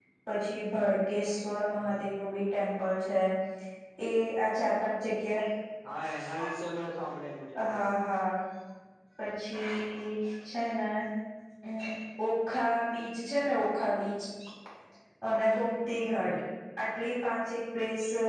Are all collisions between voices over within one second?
Yes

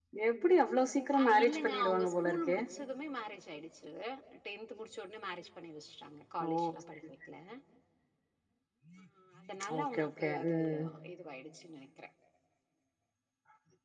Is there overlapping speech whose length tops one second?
Yes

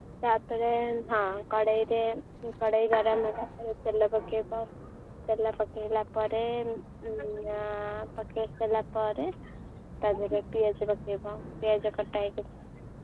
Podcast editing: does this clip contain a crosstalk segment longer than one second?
No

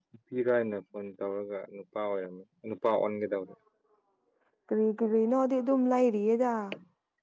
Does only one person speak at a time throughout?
Yes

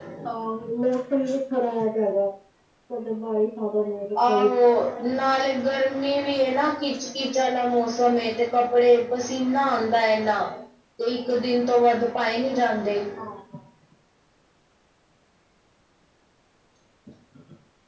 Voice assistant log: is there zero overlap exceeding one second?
Yes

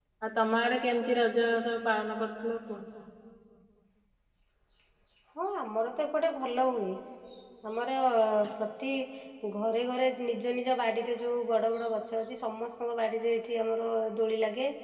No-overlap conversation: Yes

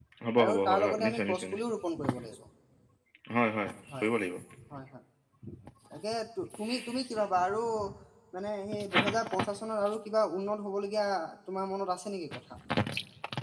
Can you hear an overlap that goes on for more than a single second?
Yes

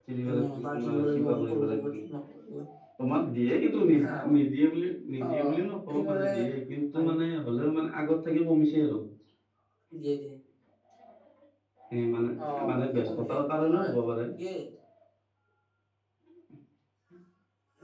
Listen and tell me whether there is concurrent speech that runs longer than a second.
Yes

